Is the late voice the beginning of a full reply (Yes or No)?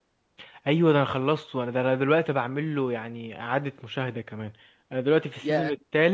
No